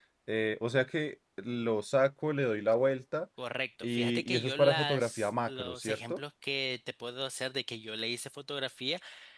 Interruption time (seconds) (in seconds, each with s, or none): 3.8 s